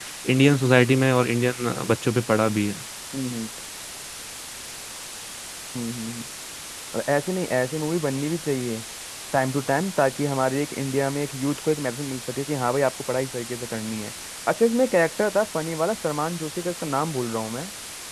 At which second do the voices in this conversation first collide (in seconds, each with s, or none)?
none